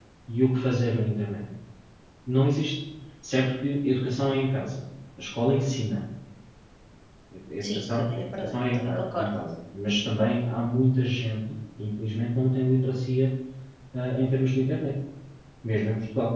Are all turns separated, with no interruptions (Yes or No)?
No